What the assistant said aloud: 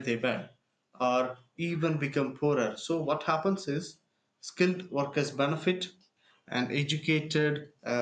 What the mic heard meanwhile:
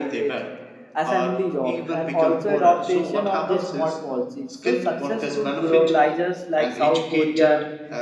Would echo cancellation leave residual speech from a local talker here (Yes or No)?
Yes